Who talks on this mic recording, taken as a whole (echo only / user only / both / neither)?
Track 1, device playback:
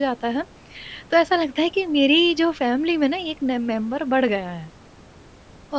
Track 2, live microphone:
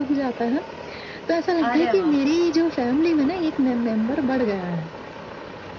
both